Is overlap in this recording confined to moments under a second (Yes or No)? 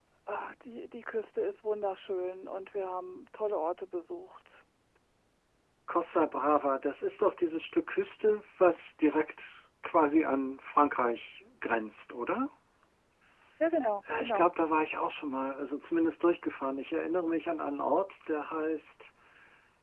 Yes